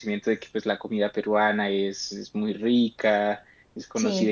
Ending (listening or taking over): listening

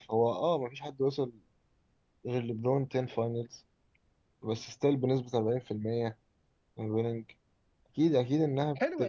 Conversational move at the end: taking over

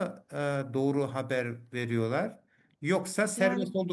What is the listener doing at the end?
listening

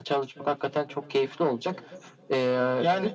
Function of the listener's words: taking over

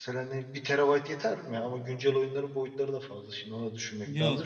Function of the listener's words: taking over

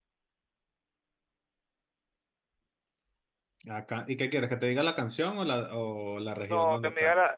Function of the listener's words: taking over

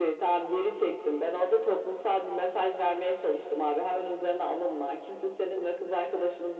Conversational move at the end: listening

